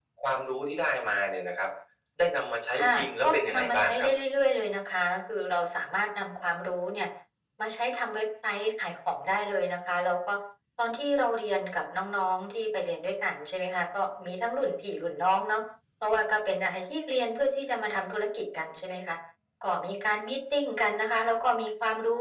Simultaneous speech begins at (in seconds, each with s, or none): 2.8 s